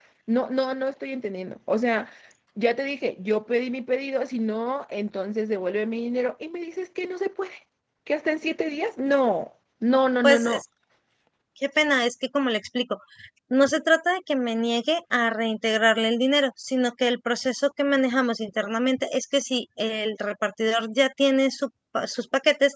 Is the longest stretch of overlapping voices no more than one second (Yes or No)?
Yes